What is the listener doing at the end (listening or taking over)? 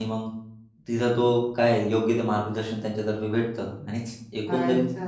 taking over